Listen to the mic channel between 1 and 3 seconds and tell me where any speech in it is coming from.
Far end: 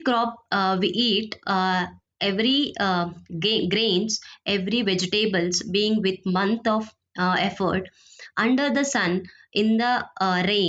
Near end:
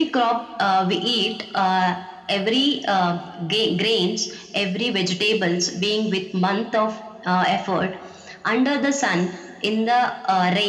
echo only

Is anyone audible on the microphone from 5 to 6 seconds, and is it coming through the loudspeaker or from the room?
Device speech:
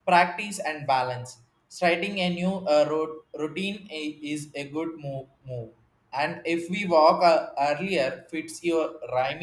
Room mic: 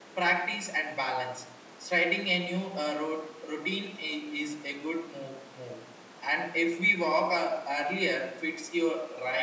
echo only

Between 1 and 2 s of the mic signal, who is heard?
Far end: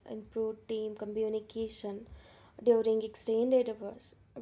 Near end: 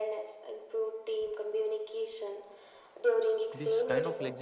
echo only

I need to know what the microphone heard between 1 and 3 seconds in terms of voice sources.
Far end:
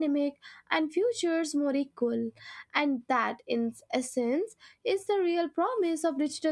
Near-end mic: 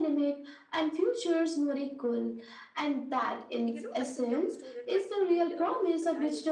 echo only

